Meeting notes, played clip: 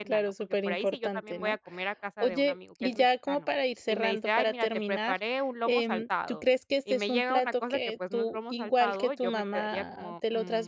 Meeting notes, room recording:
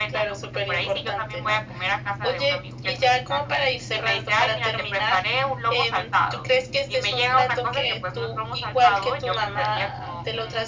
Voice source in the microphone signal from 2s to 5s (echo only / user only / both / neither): echo only